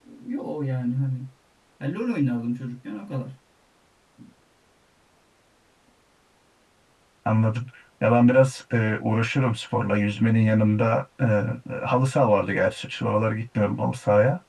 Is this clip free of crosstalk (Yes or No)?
Yes